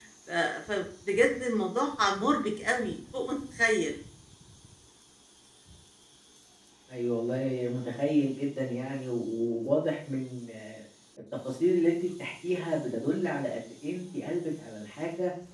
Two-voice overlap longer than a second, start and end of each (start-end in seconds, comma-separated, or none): none